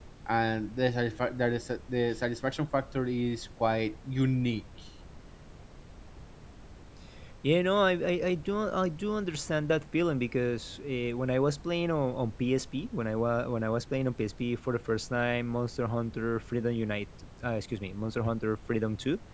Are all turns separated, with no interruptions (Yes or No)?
Yes